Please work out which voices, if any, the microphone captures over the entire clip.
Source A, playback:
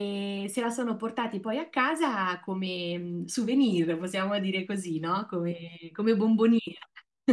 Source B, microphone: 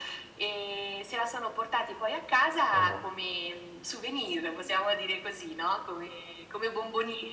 both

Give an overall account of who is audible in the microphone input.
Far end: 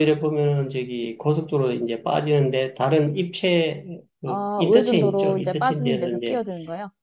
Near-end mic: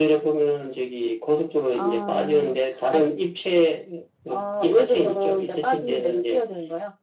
both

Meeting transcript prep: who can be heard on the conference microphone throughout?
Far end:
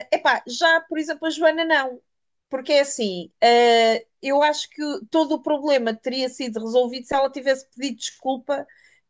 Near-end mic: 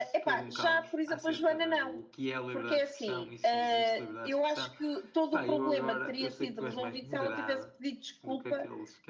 both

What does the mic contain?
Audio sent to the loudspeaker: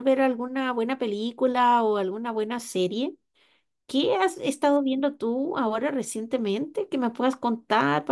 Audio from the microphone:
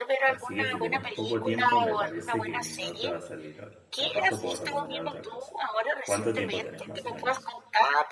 both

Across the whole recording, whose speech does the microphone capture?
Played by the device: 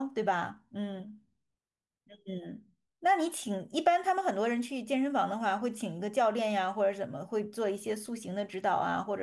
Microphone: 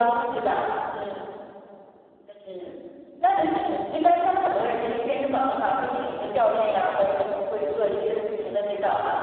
echo only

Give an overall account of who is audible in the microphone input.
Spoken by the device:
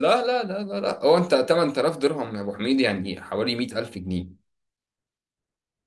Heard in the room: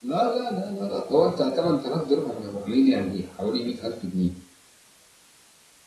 echo only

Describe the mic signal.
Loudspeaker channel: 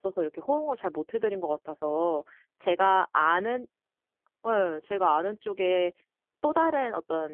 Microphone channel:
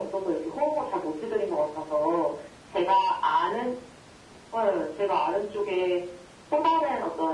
echo only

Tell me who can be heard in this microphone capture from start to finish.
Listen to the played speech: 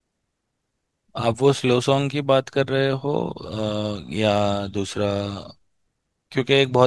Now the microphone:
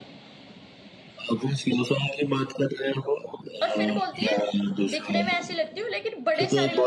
both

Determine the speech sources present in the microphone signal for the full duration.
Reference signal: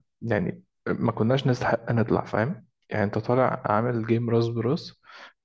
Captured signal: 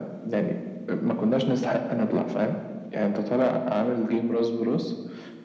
echo only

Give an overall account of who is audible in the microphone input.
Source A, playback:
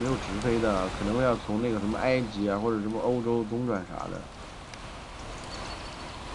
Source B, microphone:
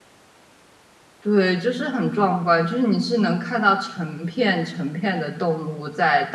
user only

